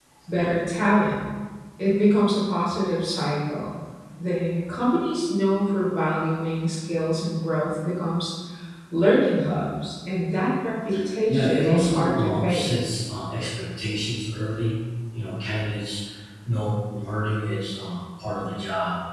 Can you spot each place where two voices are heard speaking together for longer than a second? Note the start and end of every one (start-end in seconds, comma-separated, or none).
11.3-12.6